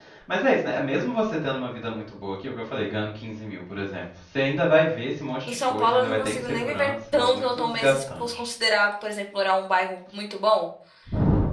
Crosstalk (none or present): present